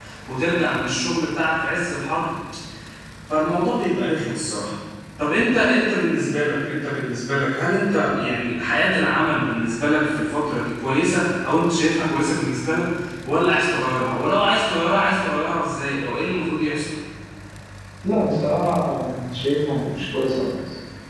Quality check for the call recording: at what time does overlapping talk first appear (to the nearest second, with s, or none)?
none